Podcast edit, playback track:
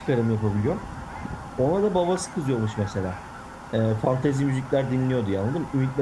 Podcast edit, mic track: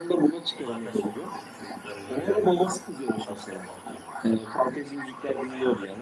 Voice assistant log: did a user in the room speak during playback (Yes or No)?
Yes